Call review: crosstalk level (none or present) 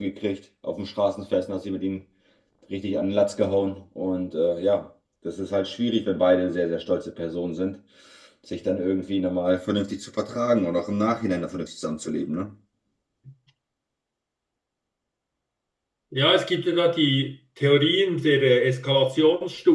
none